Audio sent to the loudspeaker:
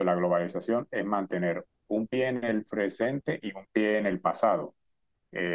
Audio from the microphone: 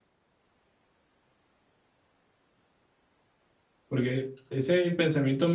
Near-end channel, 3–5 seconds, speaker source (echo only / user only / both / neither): user only